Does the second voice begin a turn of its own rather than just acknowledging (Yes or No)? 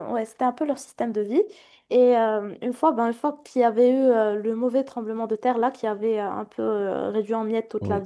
No